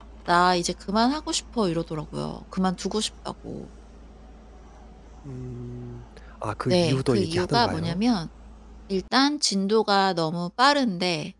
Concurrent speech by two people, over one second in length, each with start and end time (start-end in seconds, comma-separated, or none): 6.7-8.0